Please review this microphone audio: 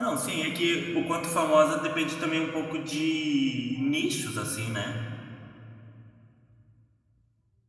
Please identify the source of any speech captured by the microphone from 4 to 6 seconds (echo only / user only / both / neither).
user only